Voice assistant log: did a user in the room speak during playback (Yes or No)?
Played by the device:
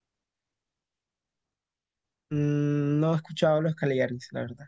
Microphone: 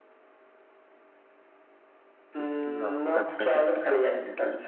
Yes